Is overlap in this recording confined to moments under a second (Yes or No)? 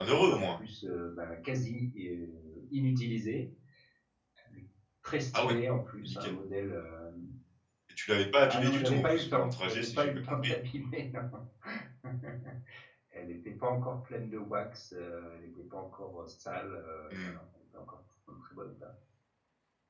No